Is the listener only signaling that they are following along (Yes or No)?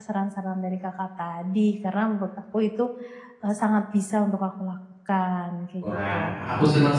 No